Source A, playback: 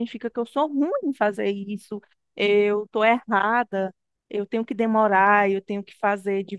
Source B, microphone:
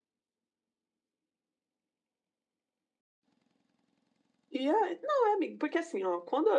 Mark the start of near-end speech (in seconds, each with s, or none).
4.5 s